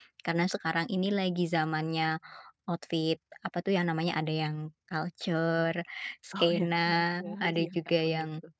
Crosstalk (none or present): present